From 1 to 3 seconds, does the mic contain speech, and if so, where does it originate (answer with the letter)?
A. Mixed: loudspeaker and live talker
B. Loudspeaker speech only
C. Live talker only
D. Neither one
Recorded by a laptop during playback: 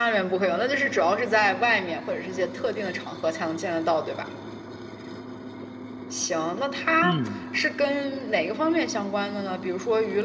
B